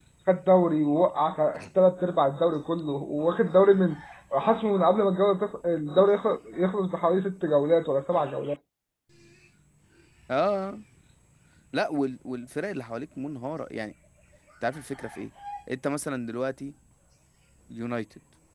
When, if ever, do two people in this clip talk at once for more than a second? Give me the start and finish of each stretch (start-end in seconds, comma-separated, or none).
none